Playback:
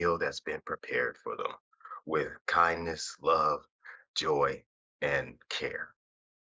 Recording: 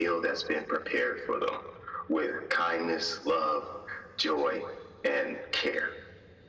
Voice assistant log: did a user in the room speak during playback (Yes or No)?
No